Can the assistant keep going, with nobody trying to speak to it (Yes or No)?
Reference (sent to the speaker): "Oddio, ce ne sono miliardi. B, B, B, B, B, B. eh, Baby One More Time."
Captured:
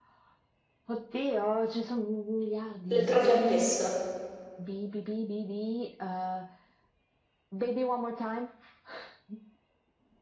No